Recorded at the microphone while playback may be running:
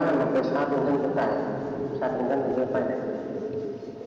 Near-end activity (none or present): none